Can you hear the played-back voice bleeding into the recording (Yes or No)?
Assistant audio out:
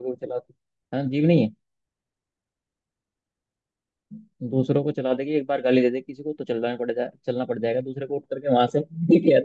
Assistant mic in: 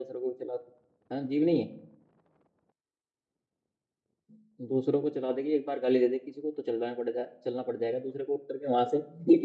Yes